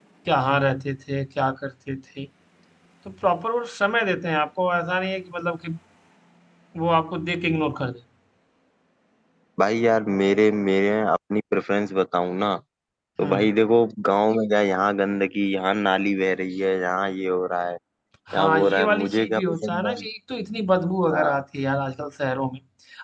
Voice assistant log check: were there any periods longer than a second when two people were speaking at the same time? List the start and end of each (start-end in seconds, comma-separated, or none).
18.3-19.9